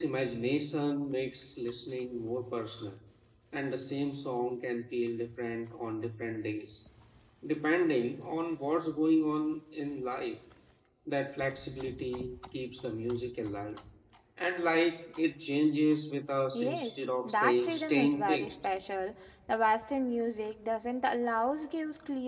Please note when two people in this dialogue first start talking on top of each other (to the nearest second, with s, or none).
17 s